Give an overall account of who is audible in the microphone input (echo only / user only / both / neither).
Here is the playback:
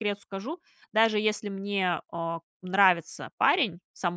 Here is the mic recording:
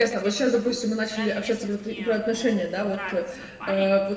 both